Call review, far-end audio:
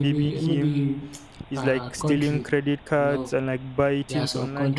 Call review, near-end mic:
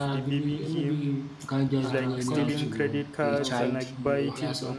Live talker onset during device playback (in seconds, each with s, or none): 1.4 s